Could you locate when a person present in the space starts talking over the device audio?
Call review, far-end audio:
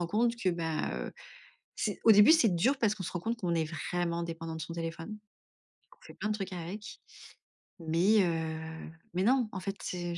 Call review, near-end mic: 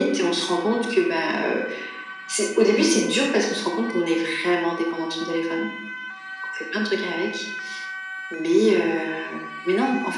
none

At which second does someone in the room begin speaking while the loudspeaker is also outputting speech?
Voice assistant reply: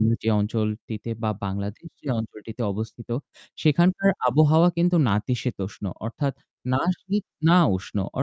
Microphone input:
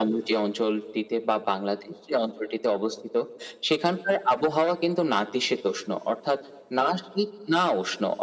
none

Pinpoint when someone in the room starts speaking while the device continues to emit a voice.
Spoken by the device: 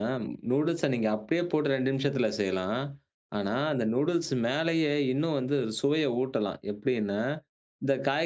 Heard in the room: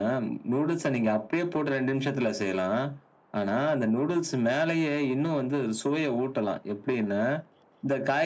none

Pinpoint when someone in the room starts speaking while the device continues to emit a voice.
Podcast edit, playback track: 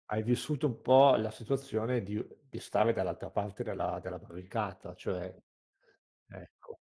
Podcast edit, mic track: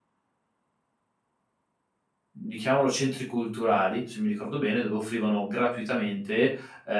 2.4 s

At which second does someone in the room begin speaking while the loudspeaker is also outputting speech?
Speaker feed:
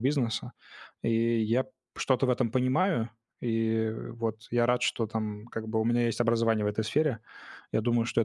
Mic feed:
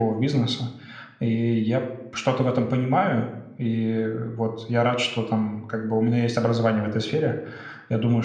none

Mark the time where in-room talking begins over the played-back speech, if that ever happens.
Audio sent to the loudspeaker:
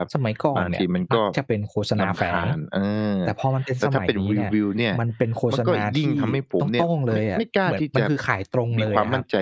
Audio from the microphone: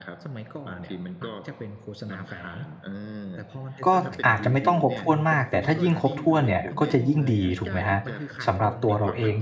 3.8 s

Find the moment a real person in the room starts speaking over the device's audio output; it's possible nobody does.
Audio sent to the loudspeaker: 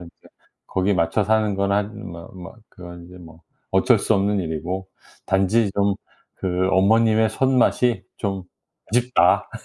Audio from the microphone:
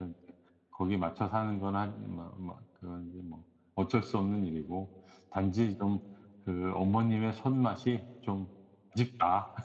none

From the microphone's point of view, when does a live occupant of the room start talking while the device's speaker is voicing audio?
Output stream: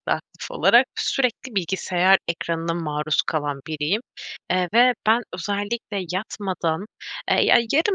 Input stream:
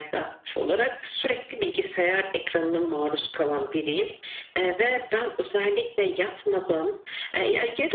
none

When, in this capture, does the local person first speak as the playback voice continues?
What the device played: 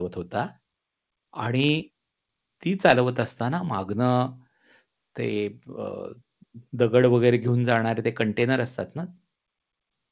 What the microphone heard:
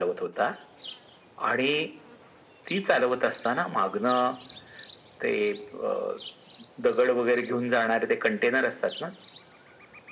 none

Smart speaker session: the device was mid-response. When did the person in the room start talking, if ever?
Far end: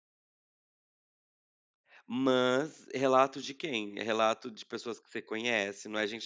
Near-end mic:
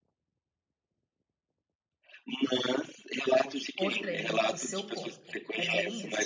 3.8 s

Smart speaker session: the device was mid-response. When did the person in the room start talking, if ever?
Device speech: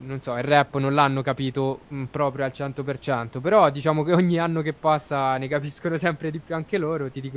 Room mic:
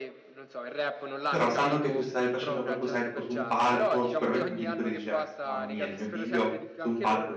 1.3 s

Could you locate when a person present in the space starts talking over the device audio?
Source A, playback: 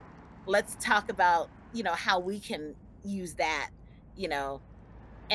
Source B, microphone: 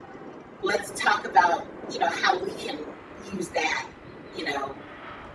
none

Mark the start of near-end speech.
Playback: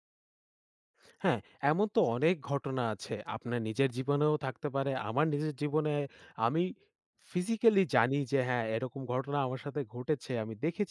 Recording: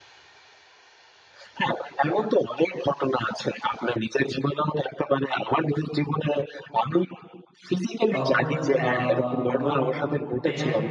8.1 s

